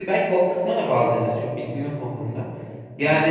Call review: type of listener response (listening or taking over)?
taking over